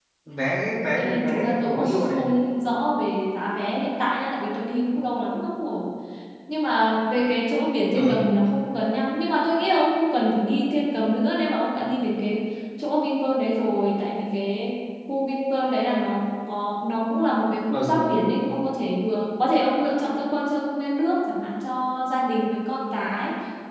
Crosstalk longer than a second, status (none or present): present